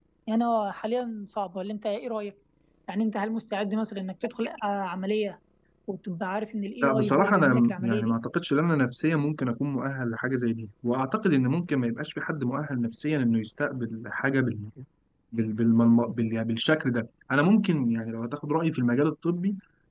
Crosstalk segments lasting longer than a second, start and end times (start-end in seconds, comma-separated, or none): 6.8-8.2